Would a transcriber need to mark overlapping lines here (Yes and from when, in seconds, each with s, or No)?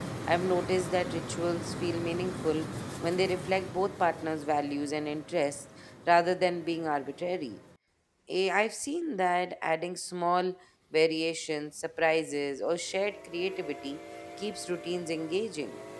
No